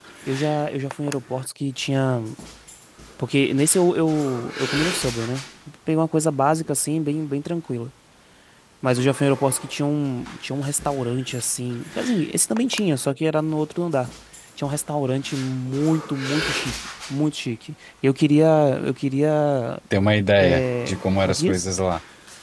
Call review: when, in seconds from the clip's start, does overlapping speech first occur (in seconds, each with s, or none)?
20.4 s